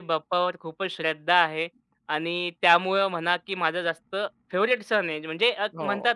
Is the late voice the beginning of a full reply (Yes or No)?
No